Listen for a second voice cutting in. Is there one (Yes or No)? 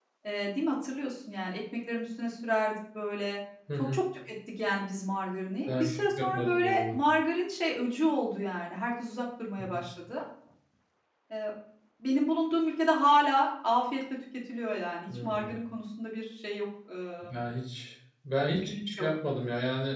Yes